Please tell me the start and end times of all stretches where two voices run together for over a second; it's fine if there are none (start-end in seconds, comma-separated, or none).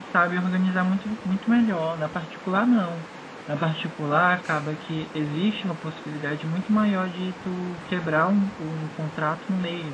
none